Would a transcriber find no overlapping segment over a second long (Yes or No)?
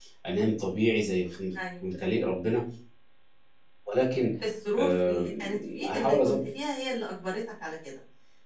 No